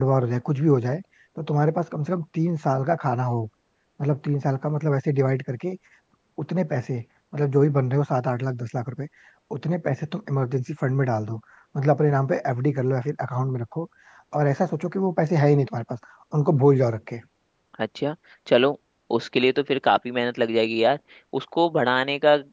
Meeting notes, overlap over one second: none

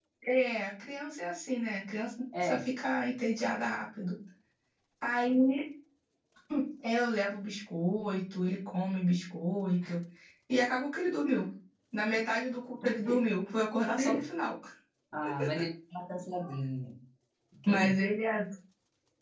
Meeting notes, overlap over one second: none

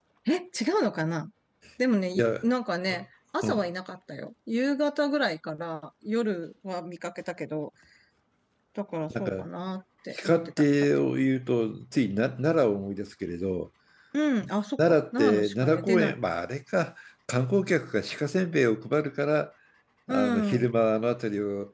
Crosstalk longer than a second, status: present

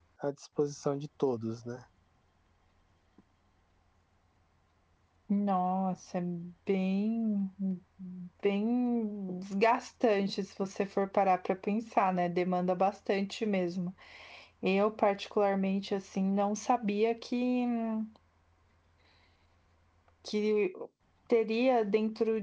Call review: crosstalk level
none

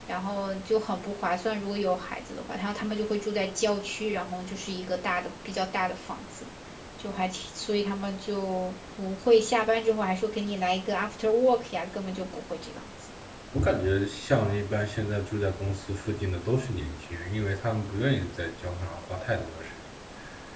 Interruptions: none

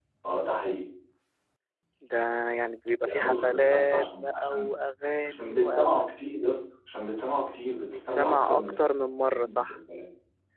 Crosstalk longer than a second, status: present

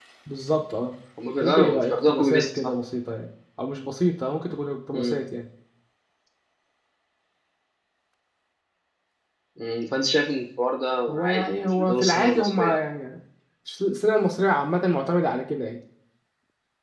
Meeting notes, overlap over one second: present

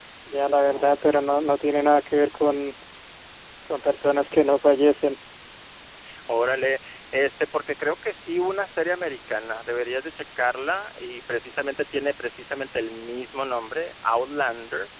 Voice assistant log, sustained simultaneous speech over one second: none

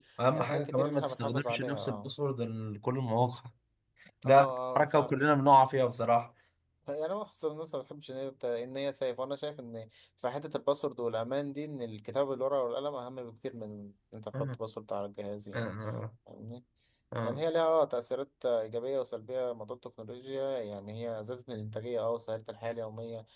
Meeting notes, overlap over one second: present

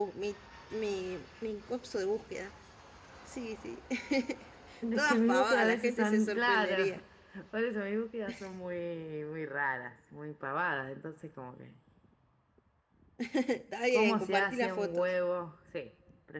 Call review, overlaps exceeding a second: present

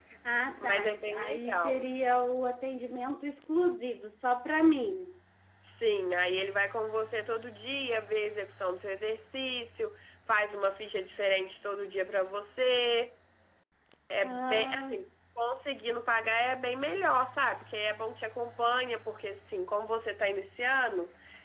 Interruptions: present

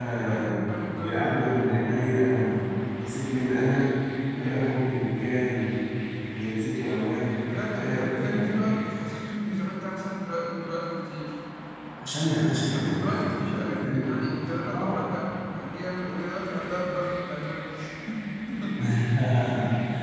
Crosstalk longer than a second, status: present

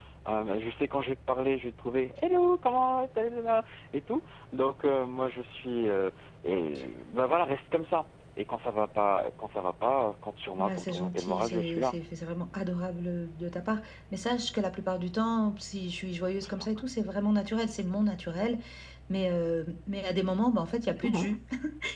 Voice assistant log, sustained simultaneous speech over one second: present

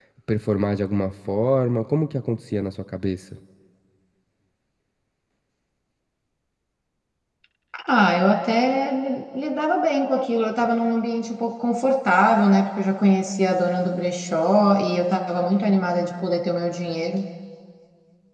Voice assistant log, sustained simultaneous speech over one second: none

